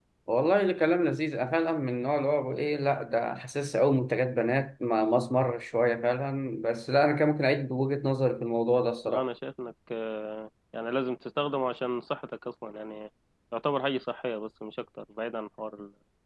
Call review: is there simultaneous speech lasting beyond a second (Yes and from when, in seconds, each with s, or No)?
No